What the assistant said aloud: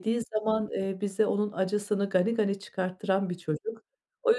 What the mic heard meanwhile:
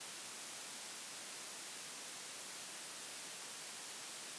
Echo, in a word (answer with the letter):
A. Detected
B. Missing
B